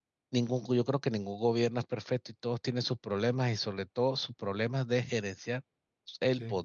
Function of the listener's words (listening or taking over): listening